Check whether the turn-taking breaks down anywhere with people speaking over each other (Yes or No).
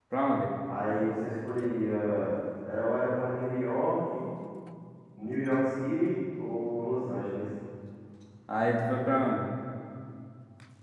No